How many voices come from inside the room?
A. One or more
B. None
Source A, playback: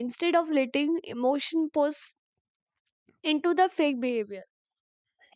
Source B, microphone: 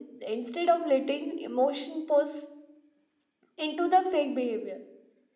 B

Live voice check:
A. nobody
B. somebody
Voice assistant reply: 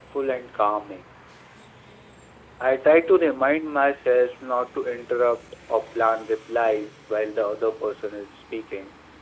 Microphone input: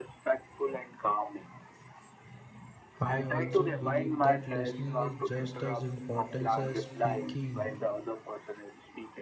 B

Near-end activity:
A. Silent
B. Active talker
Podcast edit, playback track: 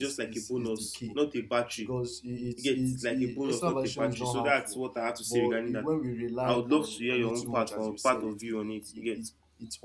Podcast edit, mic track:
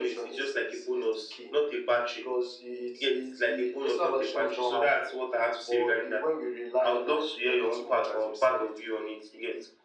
A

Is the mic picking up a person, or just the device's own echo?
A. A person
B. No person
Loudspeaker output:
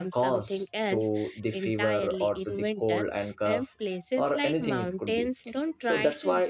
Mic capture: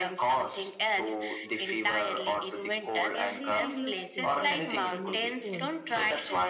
A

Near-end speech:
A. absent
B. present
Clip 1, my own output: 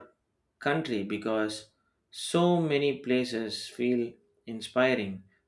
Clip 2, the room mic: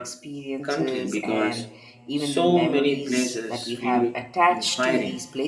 B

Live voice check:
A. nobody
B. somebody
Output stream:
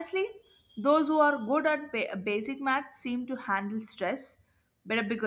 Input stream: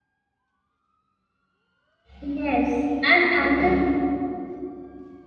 B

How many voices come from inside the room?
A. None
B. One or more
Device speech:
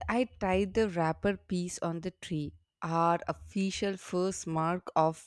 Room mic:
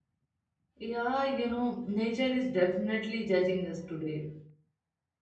B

